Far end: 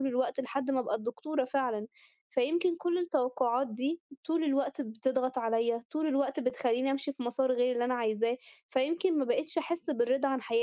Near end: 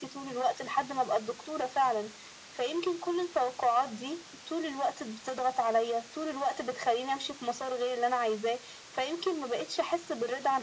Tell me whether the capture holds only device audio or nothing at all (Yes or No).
Yes